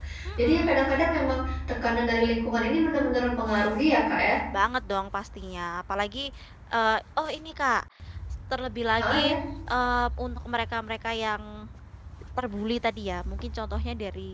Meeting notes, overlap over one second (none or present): none